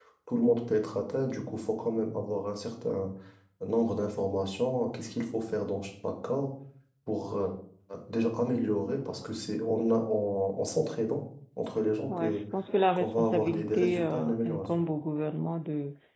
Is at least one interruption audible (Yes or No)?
Yes